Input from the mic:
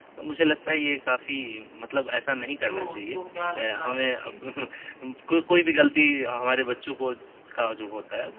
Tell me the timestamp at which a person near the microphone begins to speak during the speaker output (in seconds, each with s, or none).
2.7 s